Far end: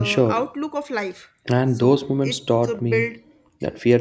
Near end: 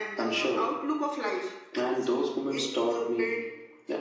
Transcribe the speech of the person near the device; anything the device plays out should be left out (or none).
none